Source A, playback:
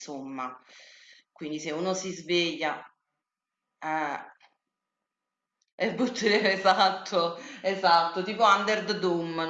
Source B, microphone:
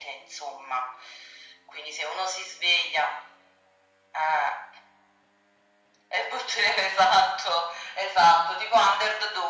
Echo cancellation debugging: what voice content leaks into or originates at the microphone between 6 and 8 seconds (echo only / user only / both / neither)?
echo only